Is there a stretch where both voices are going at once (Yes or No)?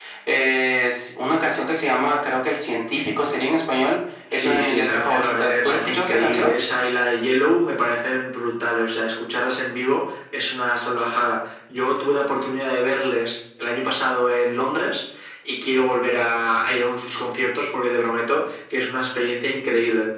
Yes